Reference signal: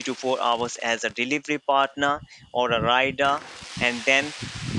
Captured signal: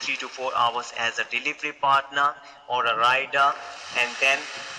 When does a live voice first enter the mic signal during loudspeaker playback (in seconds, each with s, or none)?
none